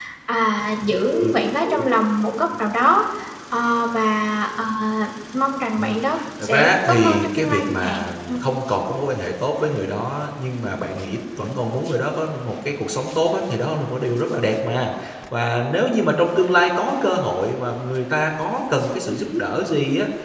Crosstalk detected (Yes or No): Yes